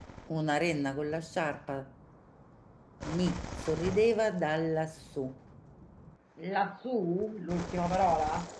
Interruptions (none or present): none